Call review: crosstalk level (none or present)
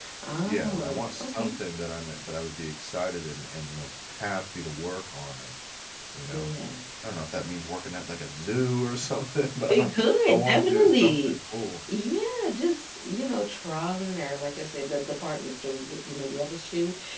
present